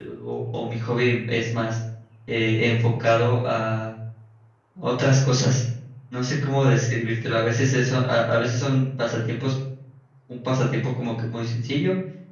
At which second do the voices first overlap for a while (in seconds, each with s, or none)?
none